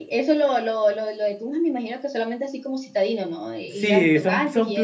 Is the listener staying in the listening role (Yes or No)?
No